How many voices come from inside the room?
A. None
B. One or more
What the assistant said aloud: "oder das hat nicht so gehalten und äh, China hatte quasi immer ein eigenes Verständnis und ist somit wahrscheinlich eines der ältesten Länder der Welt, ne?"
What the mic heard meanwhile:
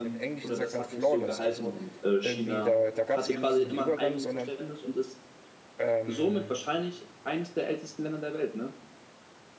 B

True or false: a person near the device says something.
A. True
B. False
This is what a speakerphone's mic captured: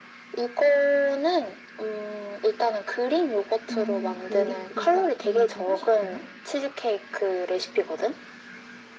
A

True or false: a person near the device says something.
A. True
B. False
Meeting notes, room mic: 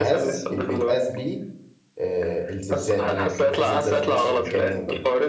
A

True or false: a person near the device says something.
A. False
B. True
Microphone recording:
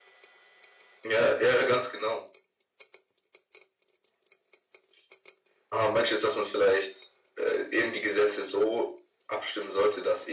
A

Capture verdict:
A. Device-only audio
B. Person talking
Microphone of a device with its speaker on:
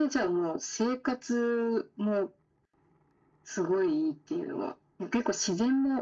A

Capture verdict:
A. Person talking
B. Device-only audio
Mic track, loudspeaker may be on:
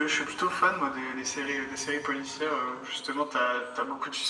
B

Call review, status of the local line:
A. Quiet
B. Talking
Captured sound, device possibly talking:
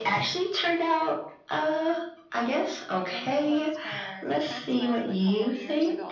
B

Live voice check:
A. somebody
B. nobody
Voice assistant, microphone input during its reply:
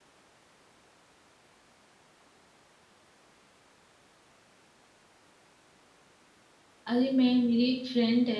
A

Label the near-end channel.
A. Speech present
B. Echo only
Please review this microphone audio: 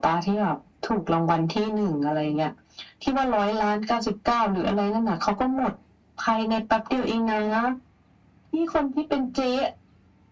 B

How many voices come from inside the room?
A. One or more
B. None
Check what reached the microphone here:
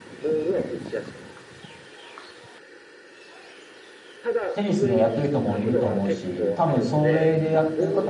A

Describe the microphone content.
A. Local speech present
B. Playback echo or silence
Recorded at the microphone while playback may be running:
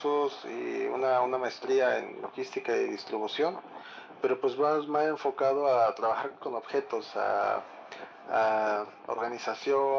B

